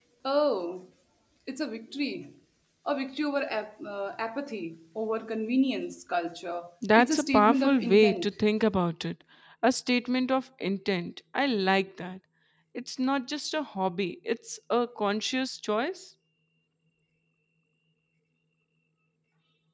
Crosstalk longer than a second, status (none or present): present